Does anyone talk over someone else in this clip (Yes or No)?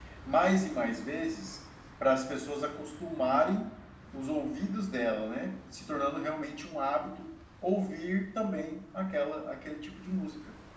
No